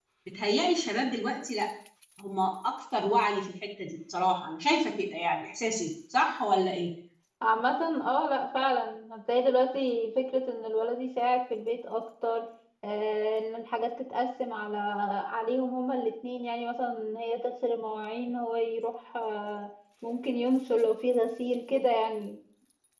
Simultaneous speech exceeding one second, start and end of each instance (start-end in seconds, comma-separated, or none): none